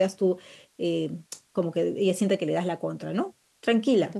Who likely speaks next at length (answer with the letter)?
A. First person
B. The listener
B